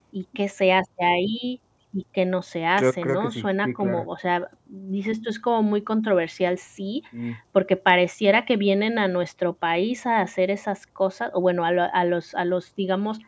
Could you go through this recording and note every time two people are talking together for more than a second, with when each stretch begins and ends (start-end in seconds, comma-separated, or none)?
2.8-4.1